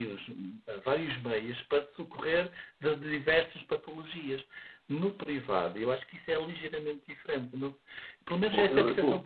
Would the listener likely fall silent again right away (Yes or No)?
No